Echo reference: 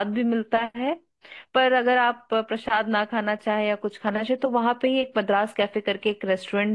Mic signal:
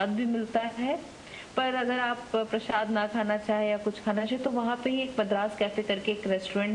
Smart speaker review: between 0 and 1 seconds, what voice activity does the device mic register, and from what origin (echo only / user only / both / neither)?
echo only